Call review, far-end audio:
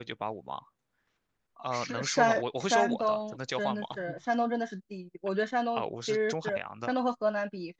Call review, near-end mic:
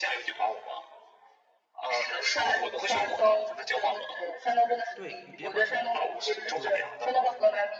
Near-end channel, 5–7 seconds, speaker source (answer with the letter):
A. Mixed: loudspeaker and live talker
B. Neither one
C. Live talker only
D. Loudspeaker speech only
A